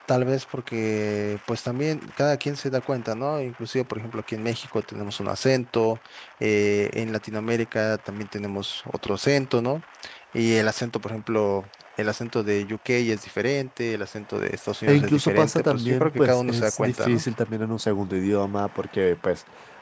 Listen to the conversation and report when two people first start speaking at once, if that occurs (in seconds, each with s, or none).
14.9 s